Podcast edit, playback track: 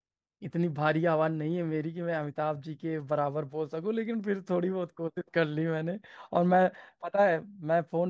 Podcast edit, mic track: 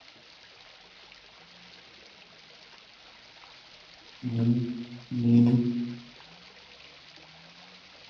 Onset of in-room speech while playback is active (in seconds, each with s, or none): 4.2 s